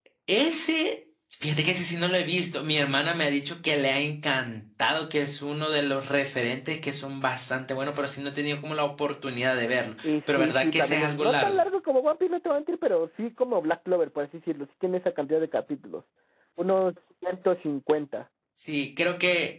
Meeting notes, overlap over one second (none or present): present